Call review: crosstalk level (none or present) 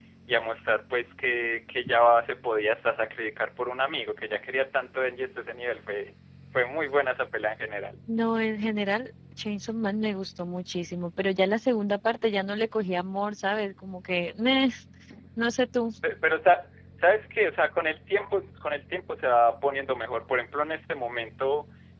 none